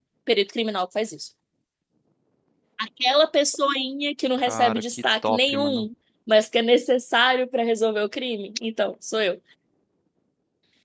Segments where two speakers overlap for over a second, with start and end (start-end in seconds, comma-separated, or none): 4.5-5.8